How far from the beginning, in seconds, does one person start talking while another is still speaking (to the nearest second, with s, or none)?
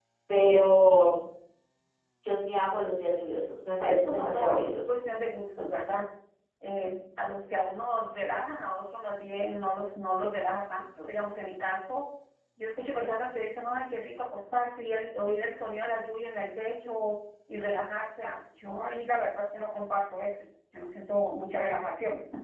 4 s